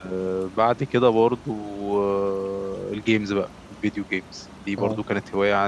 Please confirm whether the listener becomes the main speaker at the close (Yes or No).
No